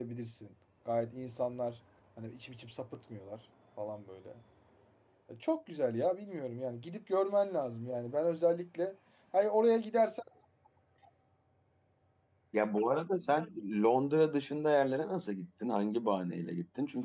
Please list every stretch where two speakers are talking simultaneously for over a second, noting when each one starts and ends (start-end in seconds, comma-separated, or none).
none